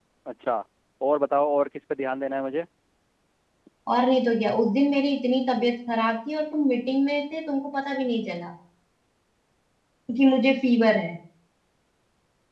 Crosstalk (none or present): none